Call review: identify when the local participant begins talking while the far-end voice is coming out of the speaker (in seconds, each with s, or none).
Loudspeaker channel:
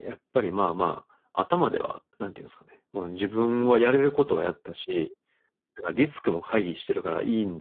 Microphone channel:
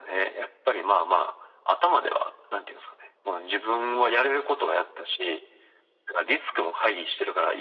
none